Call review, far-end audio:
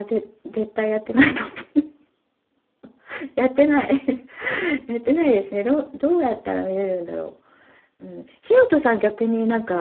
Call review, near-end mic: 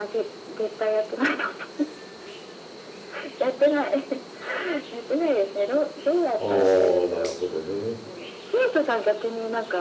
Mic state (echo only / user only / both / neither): both